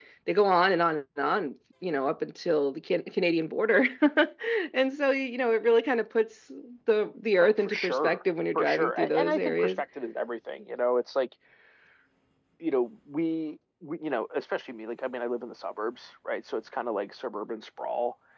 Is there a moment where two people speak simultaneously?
Yes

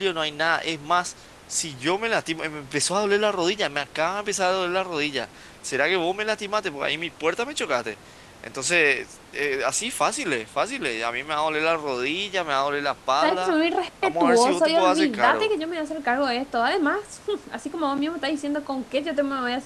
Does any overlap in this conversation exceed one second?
Yes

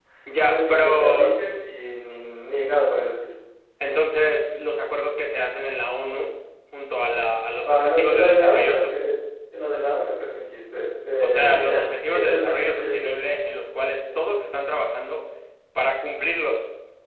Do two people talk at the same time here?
Yes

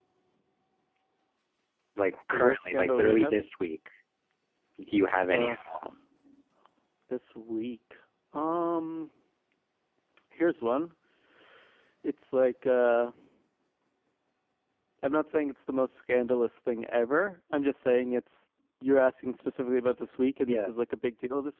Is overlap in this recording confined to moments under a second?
No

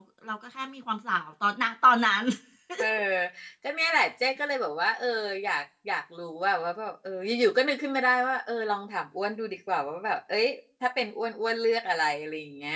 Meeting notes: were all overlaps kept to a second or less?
Yes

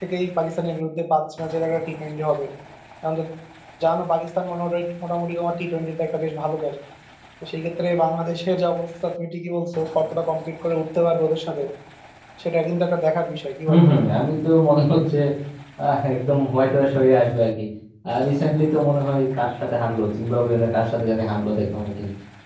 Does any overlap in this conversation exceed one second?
No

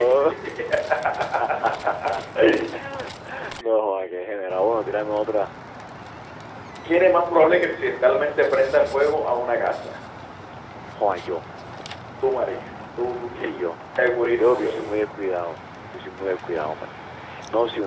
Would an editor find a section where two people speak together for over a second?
No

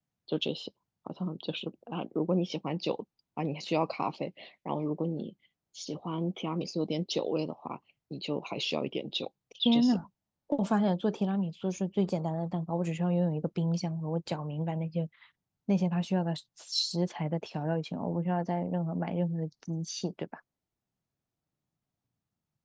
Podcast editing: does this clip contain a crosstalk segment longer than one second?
No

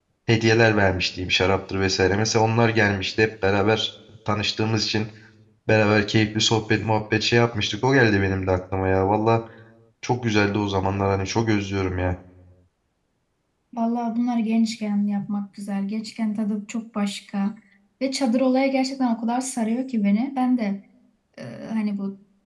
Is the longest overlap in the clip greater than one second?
No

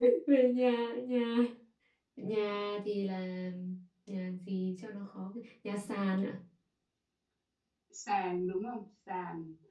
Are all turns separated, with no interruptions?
Yes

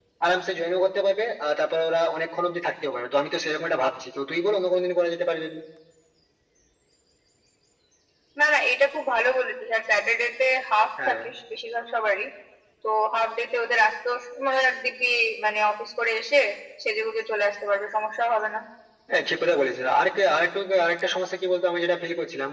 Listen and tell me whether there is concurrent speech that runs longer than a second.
No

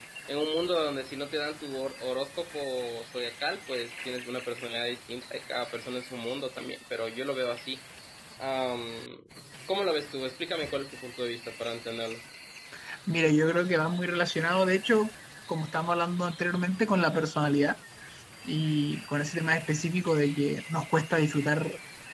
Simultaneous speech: No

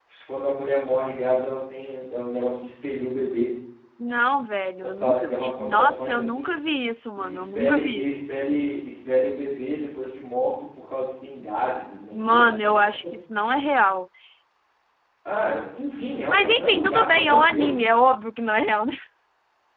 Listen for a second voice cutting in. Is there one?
Yes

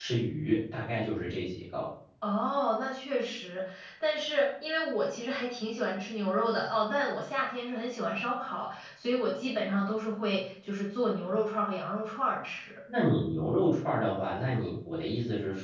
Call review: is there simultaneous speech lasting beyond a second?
No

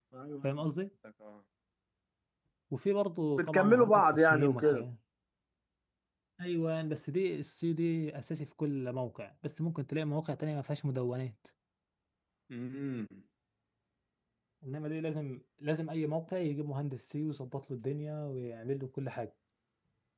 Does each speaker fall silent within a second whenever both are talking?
No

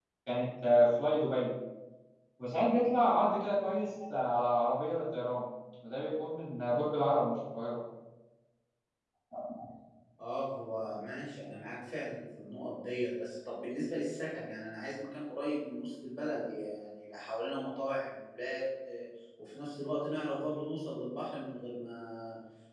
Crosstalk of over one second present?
No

